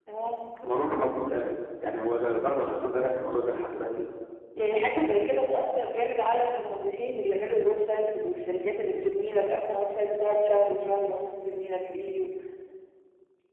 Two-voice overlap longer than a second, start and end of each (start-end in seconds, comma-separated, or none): none